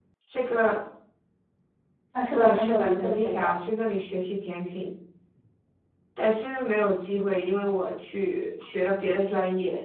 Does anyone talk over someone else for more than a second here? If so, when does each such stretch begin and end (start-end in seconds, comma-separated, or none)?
2.3-3.6